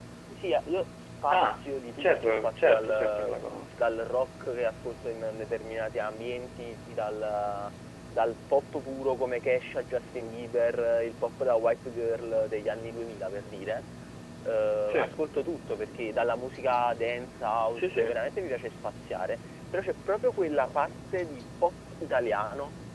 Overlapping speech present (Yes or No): Yes